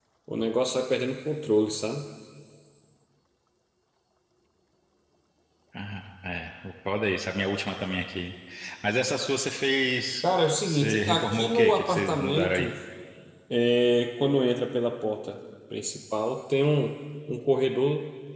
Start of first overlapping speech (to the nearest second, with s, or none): 11 s